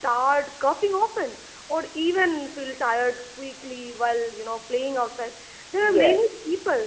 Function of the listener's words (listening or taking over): listening